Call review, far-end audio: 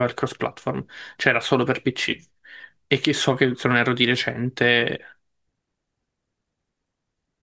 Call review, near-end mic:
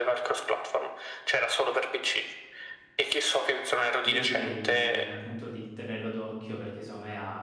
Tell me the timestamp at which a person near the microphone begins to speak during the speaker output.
4.0 s

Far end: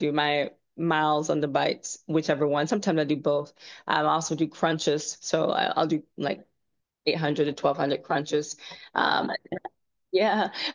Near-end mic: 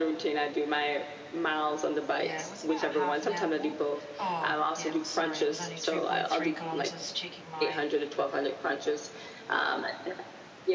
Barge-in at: 2.2 s

